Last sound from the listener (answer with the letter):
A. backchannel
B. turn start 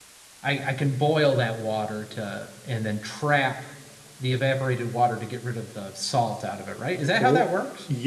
B